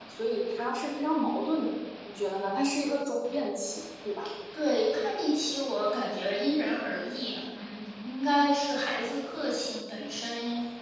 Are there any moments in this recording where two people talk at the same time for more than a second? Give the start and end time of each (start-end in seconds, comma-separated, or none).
none